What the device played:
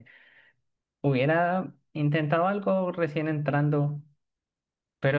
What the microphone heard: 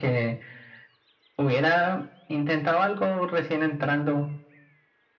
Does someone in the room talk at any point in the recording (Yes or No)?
No